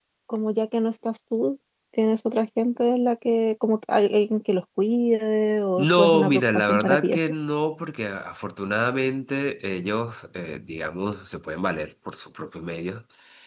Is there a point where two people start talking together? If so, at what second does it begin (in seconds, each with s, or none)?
5.8 s